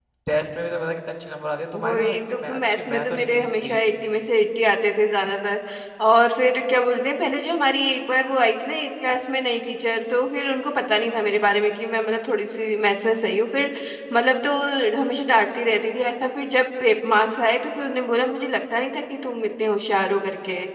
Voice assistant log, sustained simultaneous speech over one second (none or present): present